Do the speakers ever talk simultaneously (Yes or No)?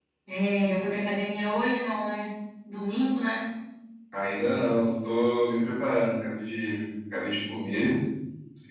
No